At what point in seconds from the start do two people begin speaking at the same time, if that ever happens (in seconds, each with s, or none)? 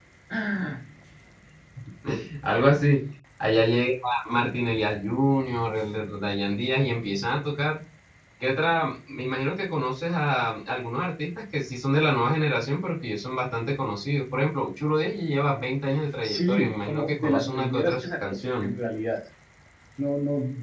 16.2 s